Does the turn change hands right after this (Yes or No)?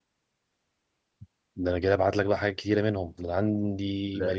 No